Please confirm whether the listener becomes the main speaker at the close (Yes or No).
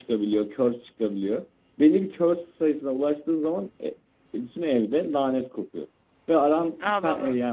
No